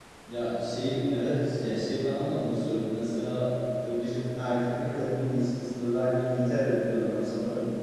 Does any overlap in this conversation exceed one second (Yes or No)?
No